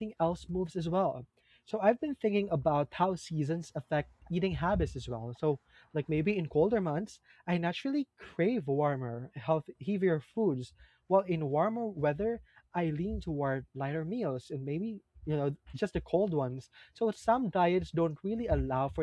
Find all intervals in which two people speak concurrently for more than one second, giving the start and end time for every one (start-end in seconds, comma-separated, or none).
none